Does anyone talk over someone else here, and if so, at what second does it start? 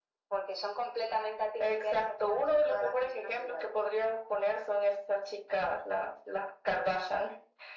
1.6 s

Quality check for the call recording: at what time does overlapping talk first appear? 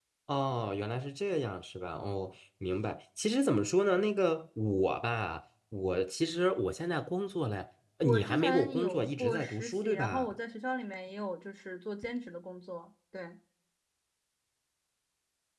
8.0 s

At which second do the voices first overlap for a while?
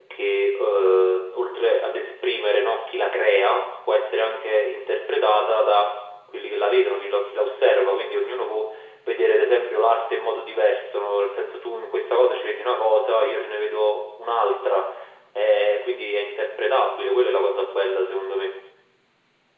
none

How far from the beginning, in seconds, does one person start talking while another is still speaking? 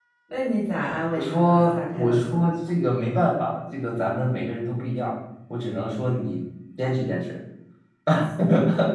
1.2 s

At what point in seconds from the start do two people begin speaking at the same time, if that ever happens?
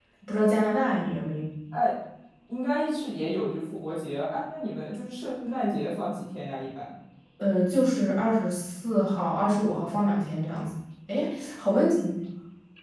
none

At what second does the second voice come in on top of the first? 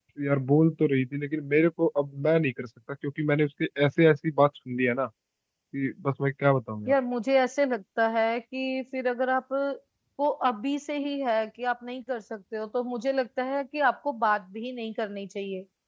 none

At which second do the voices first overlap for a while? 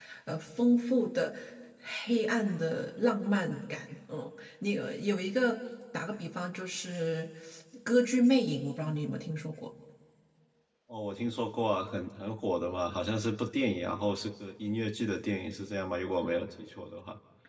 none

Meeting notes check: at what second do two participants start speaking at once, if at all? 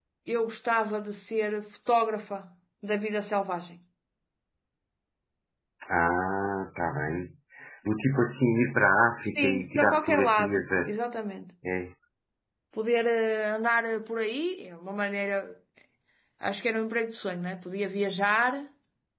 9.3 s

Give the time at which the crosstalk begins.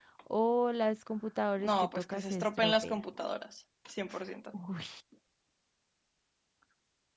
1.6 s

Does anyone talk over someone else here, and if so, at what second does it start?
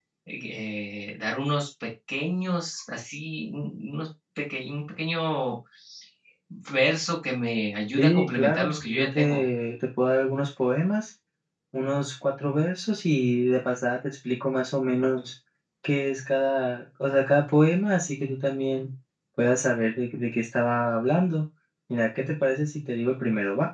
8.0 s

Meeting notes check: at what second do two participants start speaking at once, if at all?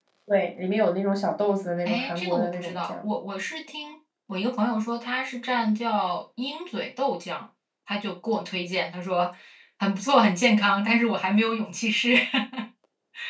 1.9 s

